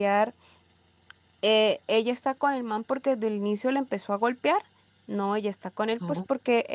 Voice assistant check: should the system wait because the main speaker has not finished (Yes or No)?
Yes